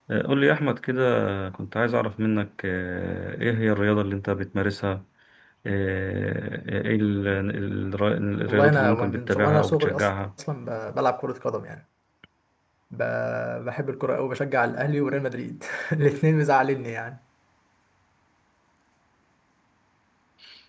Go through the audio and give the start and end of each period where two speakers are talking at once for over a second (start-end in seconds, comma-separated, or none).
8.5-10.1